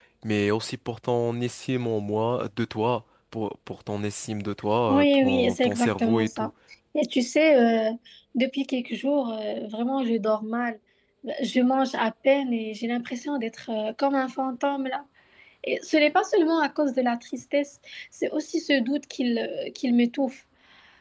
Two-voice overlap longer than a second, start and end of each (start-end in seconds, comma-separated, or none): 4.9-6.5